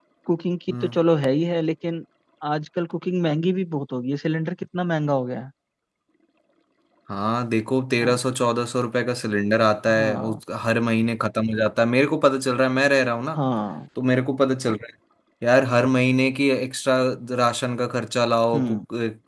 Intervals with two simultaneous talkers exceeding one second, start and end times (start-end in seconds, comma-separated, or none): none